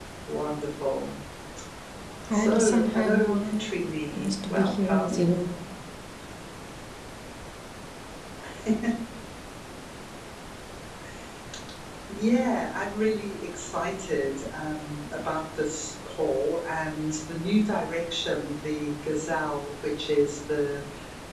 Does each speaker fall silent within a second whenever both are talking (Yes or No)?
No